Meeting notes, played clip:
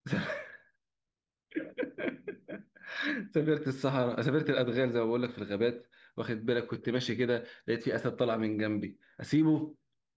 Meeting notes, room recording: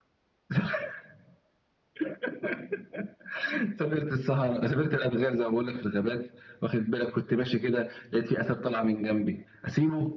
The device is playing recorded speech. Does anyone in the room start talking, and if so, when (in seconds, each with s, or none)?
none